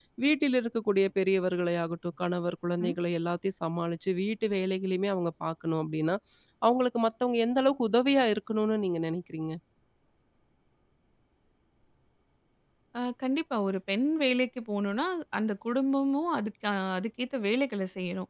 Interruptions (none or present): none